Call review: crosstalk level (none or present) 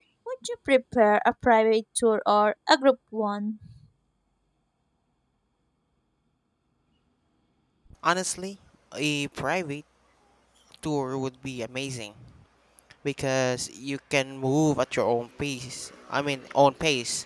none